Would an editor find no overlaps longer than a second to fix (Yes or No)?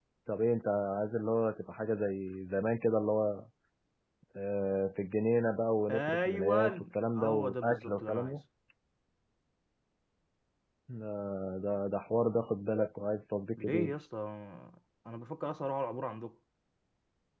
No